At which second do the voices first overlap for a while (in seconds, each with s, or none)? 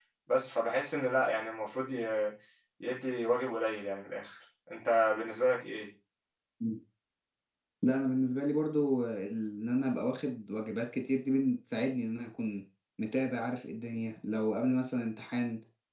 none